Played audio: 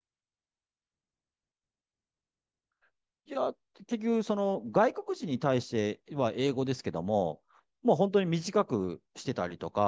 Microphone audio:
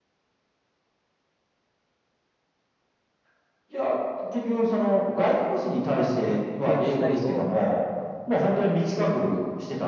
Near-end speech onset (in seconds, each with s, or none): 5.9 s